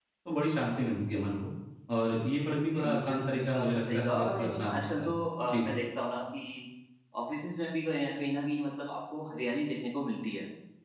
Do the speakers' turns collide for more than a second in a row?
Yes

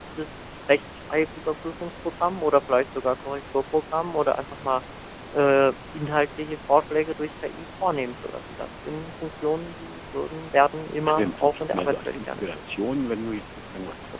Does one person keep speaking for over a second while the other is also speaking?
Yes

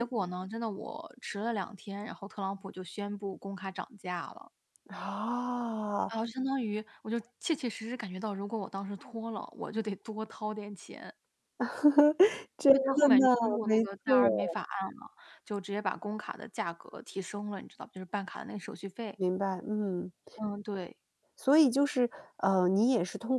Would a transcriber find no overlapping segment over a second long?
No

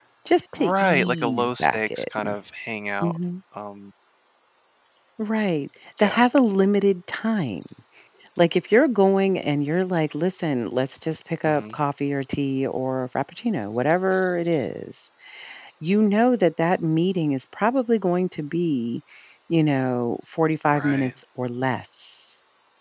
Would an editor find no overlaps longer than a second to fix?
No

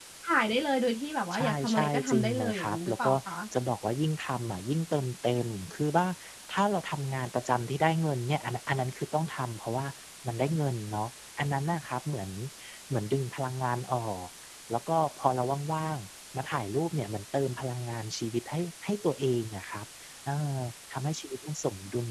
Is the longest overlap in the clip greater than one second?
Yes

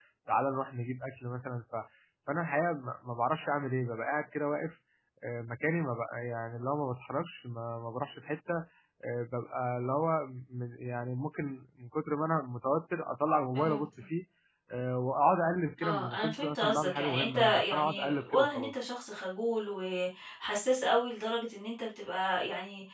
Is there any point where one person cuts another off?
Yes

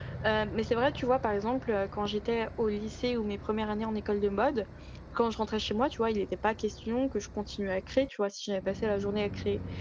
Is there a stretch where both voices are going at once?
No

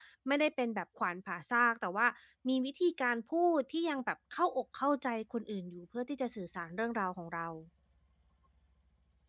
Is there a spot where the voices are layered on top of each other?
No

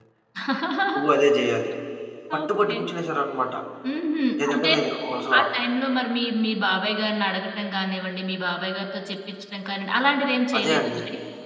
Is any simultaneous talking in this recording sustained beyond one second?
No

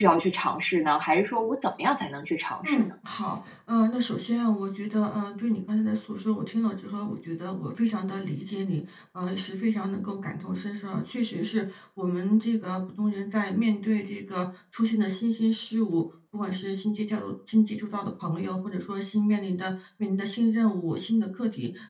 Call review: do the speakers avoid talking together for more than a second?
Yes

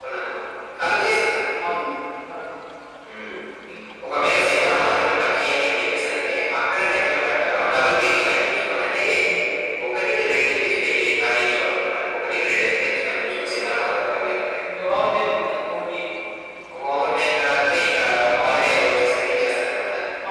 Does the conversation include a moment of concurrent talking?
No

